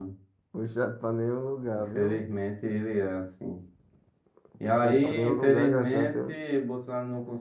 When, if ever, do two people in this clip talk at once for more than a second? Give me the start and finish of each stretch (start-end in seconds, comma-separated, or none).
4.7-6.4